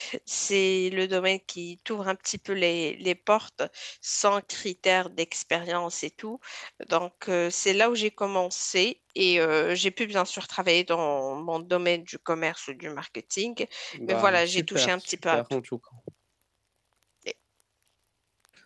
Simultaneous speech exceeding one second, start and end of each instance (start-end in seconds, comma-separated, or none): 14.1-15.4